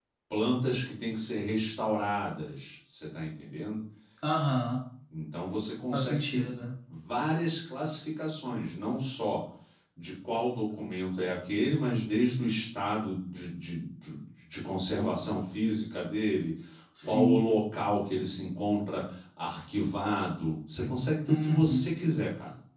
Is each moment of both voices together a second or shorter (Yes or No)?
Yes